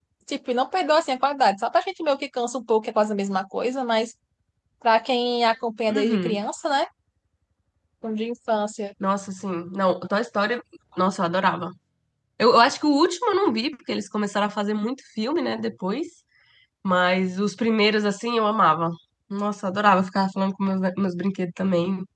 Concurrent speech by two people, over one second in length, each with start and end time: none

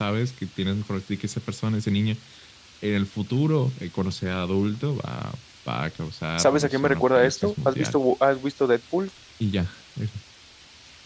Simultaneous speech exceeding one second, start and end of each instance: 6.4-8.0

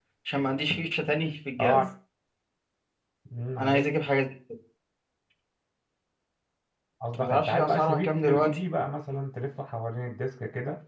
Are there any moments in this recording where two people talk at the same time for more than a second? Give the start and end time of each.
7.1-8.6

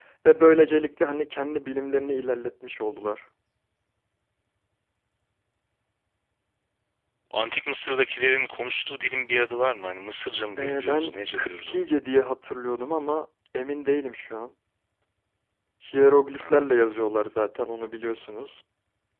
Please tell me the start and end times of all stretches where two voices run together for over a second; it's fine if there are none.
10.6-11.8

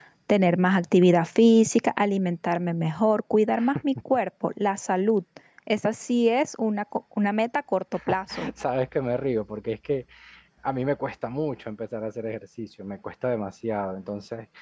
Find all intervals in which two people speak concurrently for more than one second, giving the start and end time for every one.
none

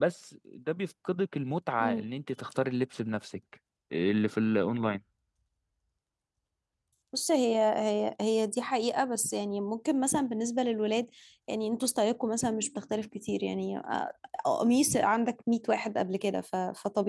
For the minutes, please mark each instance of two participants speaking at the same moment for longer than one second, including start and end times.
none

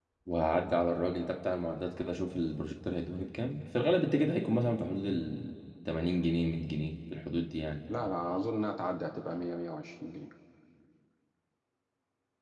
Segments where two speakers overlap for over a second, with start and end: none

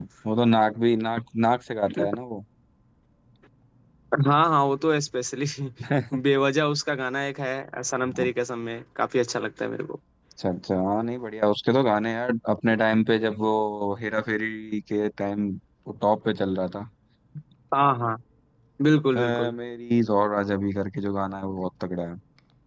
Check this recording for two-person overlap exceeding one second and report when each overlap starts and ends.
none

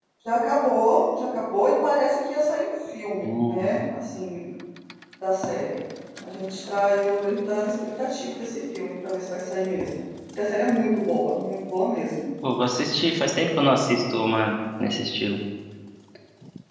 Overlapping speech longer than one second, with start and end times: none

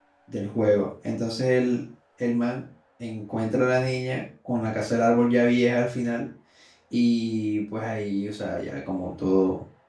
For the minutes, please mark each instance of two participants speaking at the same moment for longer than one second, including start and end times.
none

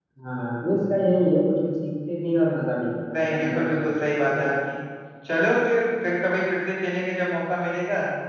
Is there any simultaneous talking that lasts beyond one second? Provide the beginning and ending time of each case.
3.1-4.5

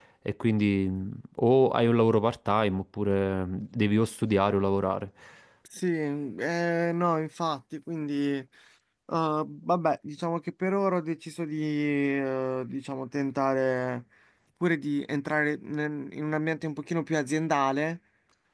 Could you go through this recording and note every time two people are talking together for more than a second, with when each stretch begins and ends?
none

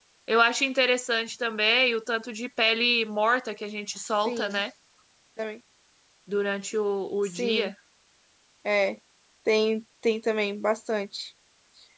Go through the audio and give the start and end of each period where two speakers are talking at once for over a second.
none

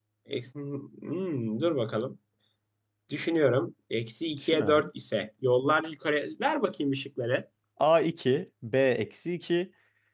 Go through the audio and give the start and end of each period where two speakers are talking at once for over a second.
none

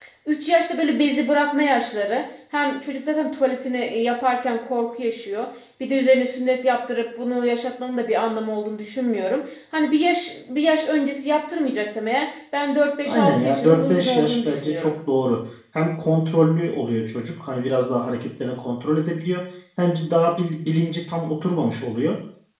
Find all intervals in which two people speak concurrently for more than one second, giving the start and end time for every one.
13.0-15.0

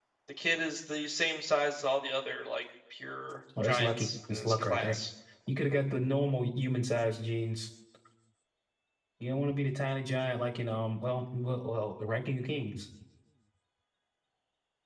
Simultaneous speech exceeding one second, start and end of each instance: 3.6-5.0

